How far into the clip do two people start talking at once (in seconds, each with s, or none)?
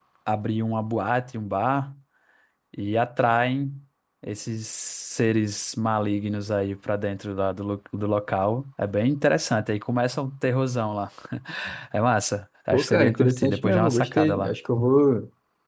12.7 s